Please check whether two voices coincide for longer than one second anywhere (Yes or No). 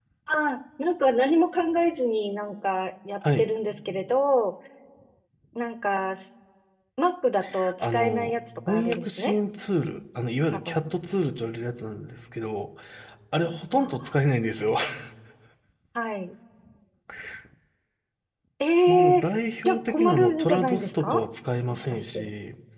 Yes